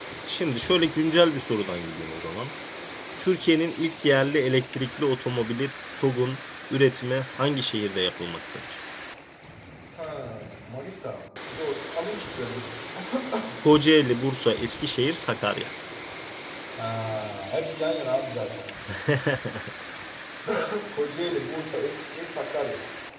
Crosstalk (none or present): none